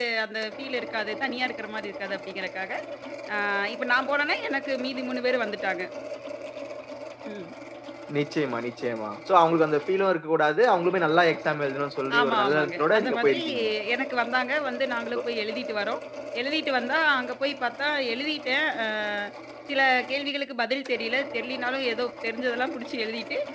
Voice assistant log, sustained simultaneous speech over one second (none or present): present